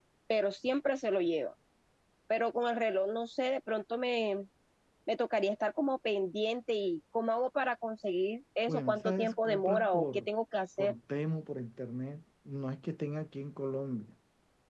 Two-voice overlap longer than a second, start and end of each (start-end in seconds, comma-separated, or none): 8.7-10.3